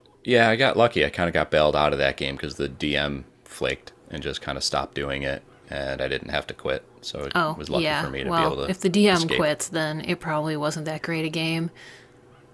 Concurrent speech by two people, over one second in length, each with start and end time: 7.5-8.7

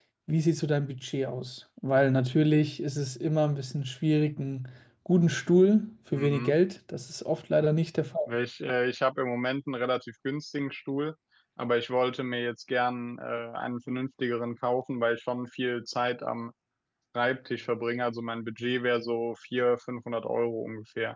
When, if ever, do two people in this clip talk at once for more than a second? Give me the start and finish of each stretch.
none

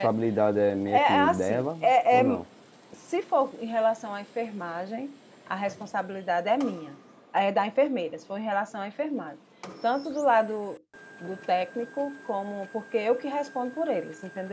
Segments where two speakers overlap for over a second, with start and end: 0.9-2.2

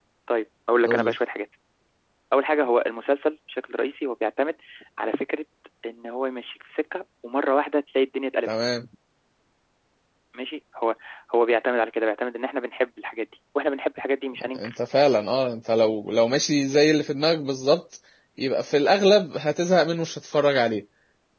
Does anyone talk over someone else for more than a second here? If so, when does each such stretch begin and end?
none

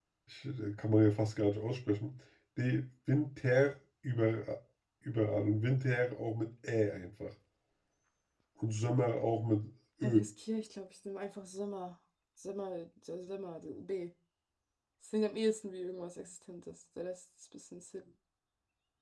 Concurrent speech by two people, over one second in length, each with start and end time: none

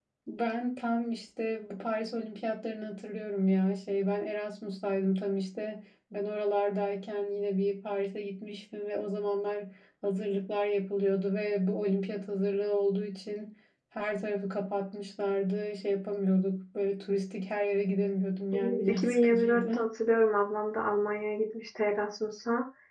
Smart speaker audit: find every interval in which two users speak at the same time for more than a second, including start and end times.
18.6-19.9

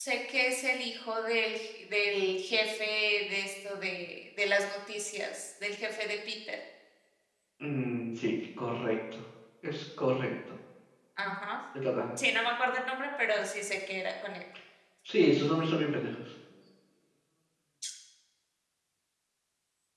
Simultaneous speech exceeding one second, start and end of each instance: none

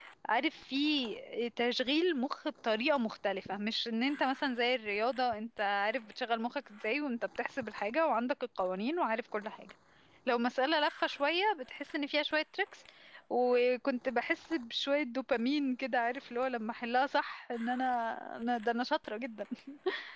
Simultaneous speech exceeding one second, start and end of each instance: none

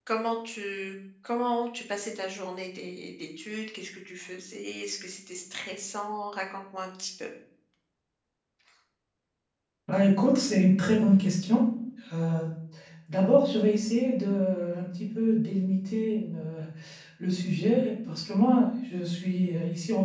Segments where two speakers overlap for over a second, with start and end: none

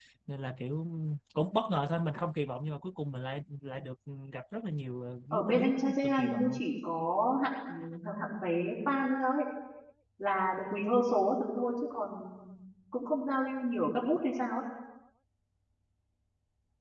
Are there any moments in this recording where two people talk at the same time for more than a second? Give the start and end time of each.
5.3-6.6

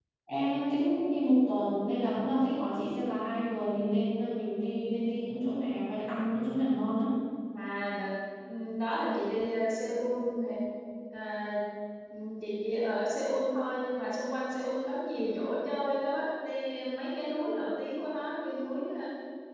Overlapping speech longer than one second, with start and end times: none

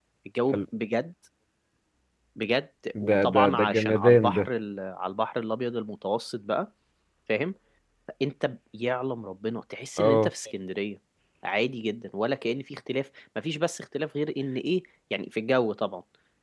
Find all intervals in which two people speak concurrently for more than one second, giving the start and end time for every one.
3.1-4.4

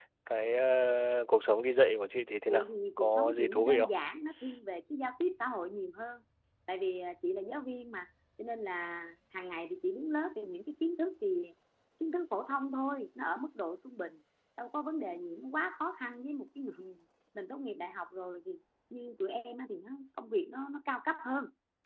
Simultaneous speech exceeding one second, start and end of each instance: 2.5-3.9

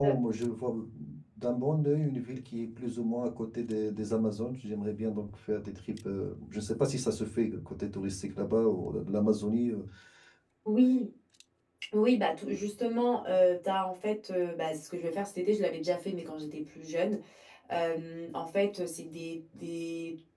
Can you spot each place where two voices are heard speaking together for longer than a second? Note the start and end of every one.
none

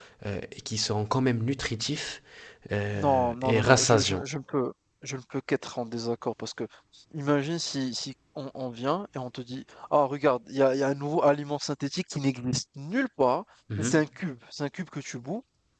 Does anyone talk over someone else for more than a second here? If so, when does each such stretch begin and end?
3.0-4.2

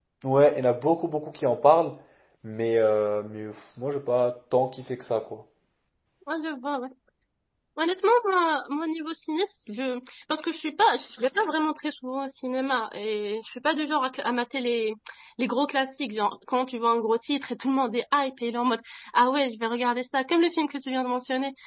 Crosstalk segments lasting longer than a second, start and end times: none

